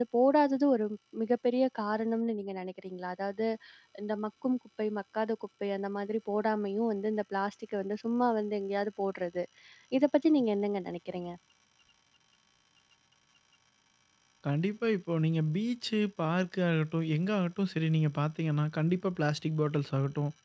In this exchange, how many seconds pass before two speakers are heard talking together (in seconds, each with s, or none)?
none